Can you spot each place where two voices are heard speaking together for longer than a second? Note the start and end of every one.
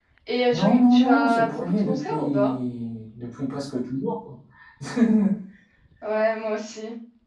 0.5-2.5

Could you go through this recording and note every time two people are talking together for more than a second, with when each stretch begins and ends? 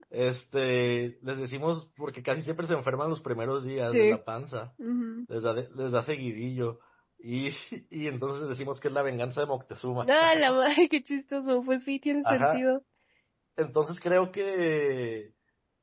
none

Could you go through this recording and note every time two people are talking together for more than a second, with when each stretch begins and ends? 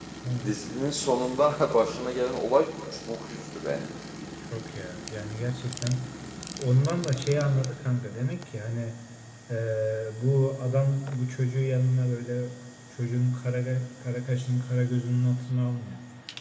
none

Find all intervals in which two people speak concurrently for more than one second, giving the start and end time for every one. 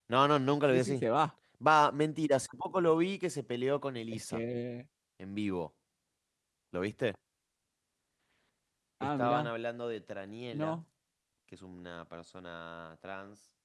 none

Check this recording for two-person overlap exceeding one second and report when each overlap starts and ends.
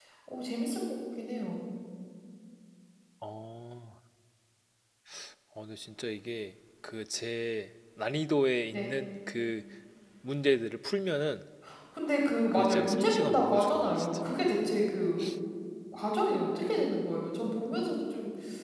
12.5-14.1

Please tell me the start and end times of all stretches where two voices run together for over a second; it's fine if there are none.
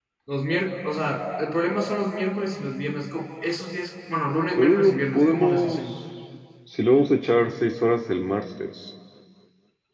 4.6-5.8

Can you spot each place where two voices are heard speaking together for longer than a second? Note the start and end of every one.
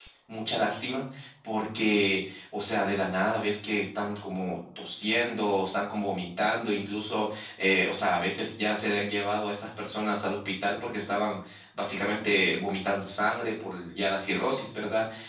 none

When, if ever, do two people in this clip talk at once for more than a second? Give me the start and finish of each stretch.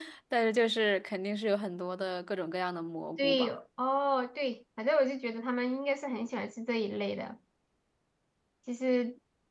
none

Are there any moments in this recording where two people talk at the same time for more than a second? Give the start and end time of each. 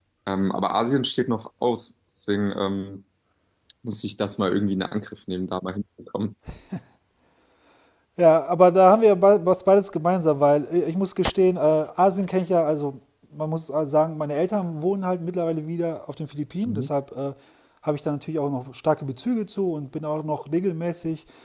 none

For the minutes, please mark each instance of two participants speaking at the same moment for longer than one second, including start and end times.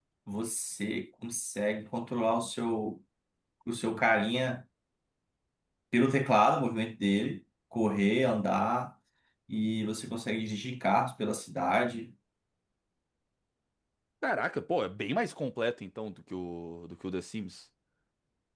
none

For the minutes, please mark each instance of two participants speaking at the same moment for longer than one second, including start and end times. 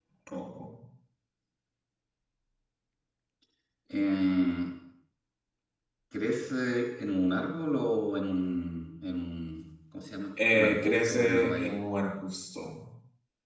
10.5-11.7

